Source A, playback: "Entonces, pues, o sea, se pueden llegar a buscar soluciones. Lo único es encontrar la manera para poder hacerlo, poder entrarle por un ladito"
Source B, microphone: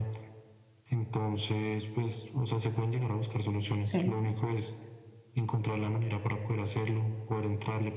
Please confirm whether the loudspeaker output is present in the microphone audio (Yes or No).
Yes